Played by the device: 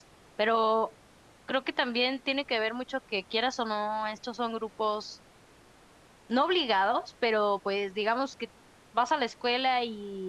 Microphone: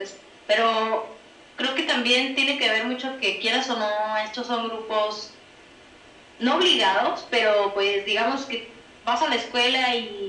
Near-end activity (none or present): none